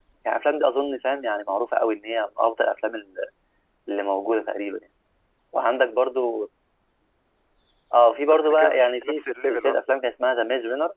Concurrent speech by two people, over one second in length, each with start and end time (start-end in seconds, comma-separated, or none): 8.3-9.8